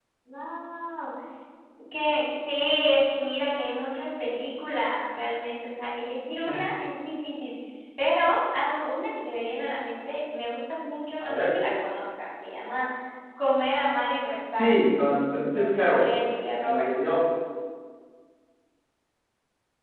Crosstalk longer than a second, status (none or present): none